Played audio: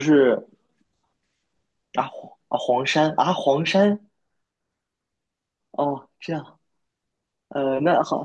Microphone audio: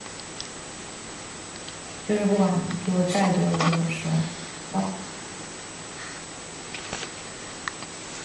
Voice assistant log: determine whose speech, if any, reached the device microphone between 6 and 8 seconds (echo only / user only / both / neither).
neither